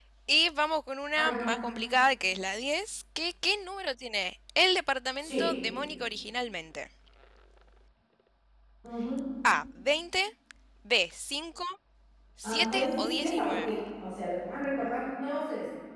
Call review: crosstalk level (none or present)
present